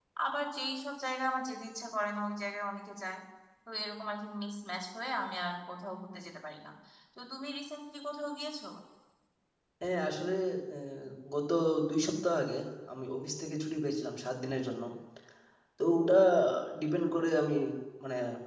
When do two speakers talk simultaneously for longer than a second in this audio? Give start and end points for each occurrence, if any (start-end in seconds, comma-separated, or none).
none